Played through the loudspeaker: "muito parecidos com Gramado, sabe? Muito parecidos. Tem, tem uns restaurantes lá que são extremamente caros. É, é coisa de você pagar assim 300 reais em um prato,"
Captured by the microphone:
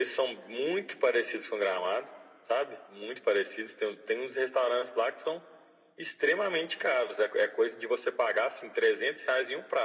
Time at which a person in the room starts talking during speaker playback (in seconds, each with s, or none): none